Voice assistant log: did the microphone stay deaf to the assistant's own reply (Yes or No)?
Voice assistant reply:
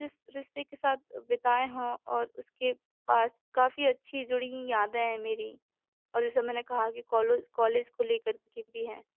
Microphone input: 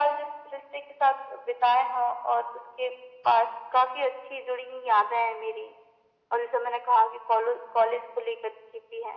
No